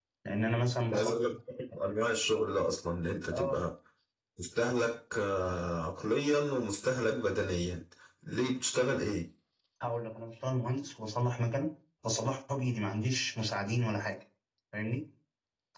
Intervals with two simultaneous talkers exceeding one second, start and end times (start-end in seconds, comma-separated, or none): none